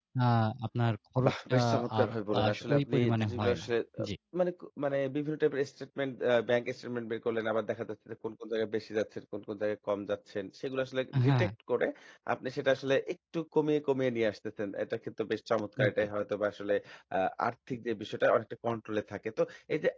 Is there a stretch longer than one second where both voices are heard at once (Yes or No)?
Yes